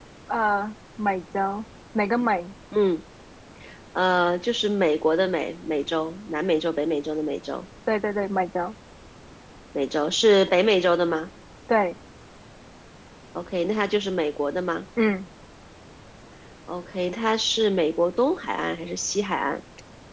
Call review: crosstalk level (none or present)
none